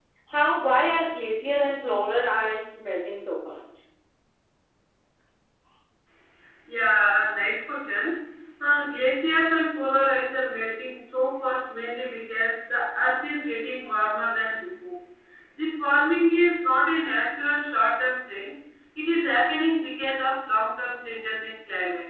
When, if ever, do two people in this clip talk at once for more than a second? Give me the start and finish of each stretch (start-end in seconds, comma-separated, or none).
none